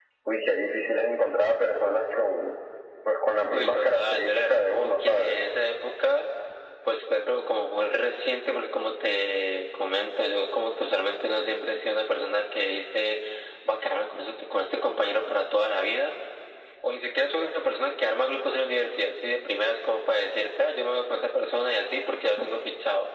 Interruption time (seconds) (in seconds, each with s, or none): 3.5 s